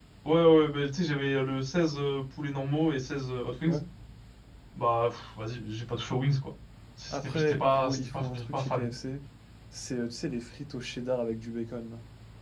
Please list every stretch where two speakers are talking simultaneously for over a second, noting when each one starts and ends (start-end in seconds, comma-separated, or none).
7.1-8.9